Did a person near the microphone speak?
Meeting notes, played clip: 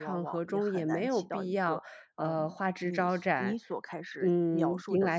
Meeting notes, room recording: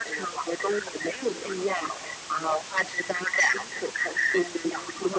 No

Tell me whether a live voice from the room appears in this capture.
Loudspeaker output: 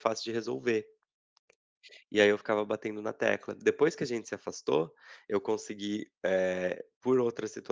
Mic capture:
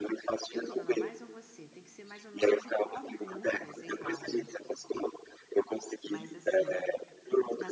Yes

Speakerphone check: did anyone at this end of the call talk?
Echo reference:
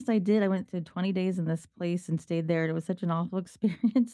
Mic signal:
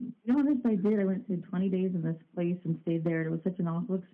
Yes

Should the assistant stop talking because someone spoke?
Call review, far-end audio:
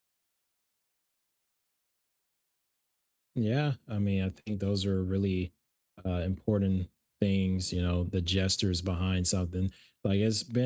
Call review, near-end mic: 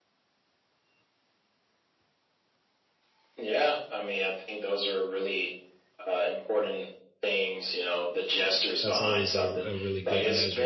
Yes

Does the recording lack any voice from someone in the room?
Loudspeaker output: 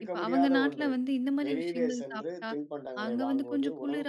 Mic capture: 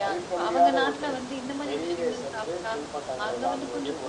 Yes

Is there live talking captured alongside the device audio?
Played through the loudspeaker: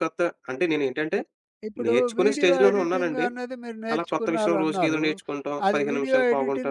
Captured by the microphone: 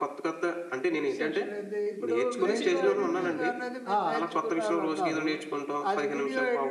Yes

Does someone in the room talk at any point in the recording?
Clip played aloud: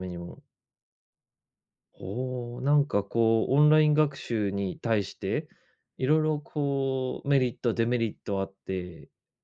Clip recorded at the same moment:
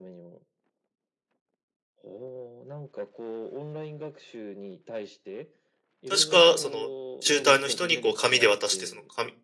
Yes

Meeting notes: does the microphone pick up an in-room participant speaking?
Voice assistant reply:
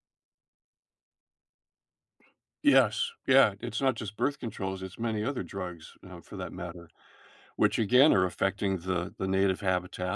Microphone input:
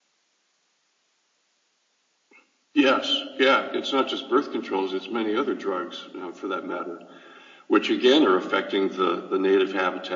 No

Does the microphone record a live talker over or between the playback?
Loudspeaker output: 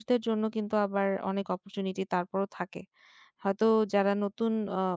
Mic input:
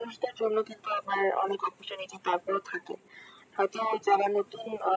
No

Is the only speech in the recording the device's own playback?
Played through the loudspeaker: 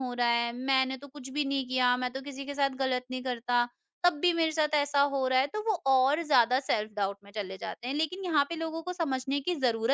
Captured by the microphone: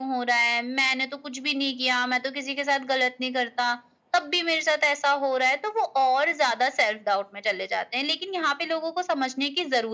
Yes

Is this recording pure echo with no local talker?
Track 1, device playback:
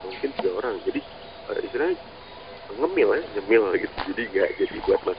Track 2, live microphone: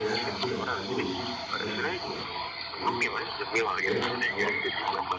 No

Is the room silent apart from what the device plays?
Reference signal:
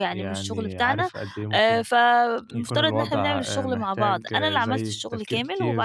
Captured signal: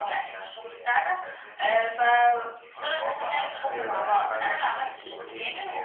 No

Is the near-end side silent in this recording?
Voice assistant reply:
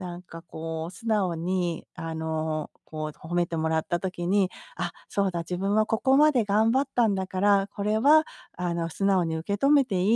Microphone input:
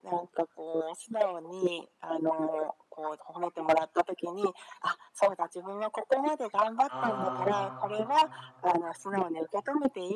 No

